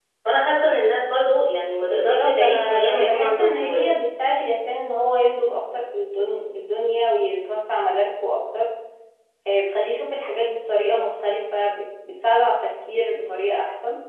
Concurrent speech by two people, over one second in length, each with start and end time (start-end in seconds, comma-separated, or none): 2.0-3.9